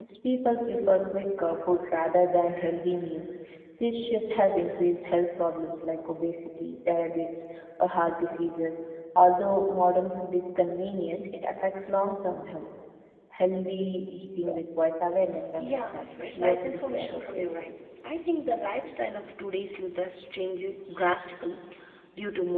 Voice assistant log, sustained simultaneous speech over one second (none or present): present